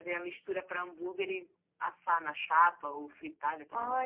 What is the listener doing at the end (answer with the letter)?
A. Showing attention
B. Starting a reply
B